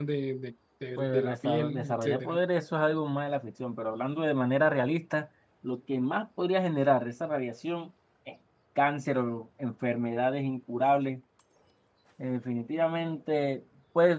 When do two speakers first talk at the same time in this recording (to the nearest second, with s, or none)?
1 s